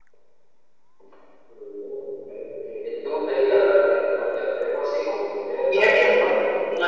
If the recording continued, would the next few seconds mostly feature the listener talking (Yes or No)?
Yes